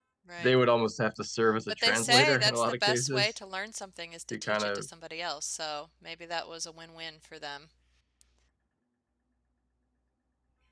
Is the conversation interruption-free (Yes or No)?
No